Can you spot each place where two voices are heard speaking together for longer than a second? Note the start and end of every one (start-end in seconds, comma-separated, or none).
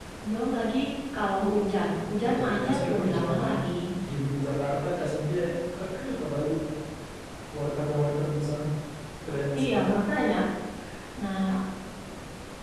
2.2-3.5